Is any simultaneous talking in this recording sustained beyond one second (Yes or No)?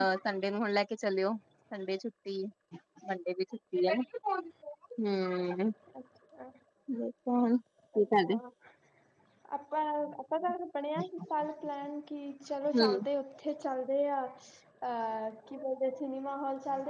No